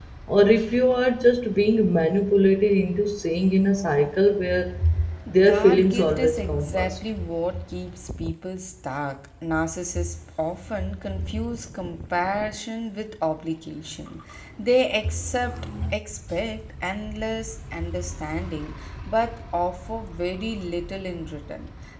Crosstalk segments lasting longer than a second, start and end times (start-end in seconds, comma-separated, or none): 5.4-7.0